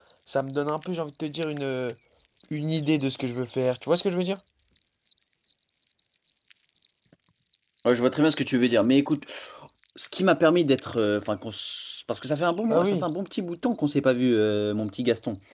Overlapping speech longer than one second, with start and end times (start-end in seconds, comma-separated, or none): none